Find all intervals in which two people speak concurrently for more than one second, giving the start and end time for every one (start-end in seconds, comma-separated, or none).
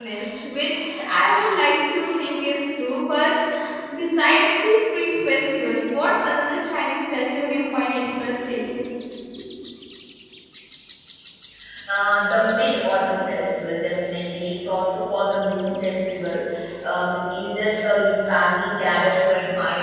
none